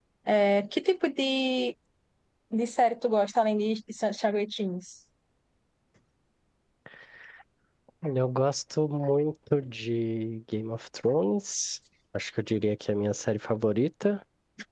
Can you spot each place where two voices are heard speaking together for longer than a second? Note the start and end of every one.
none

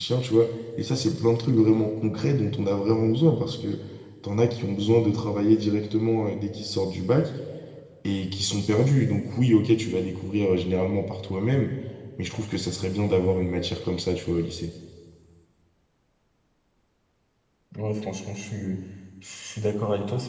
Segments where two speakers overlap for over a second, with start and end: none

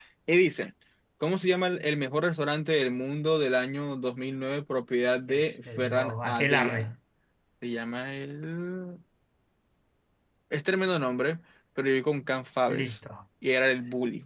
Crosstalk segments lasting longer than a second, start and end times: 5.3-6.8

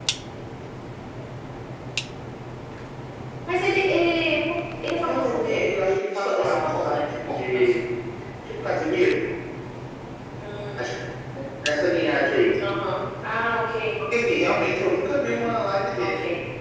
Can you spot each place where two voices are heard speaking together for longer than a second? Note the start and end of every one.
6.1-7.7

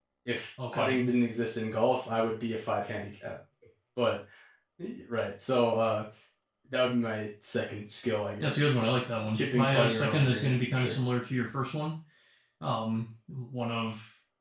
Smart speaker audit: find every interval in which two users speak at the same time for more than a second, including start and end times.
9.3-11.0

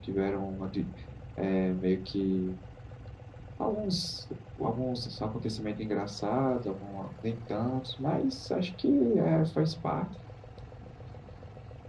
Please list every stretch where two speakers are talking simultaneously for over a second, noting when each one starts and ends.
none

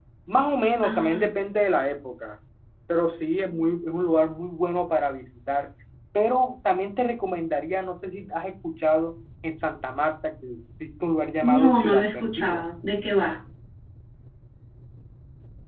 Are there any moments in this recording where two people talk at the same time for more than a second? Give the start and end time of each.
11.4-12.7

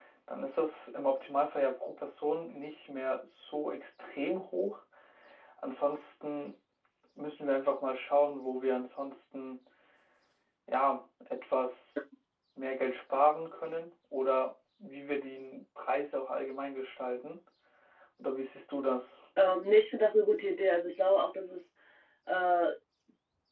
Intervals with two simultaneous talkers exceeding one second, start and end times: none

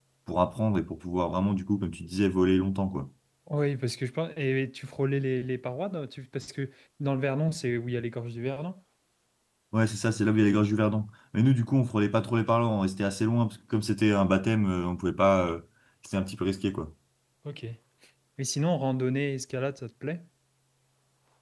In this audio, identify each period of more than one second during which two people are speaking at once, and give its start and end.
none

